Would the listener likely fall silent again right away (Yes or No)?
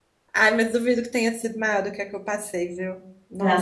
No